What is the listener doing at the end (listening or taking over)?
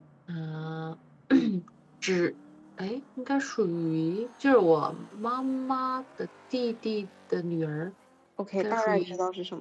taking over